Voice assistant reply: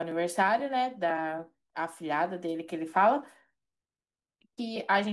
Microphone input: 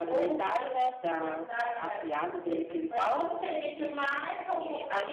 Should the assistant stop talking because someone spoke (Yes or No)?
Yes